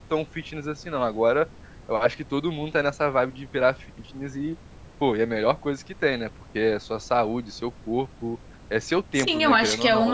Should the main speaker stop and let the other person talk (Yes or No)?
Yes